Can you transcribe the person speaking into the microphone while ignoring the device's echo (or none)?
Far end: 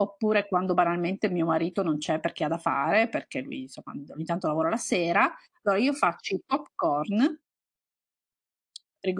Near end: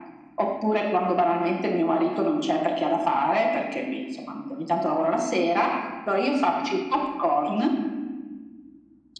none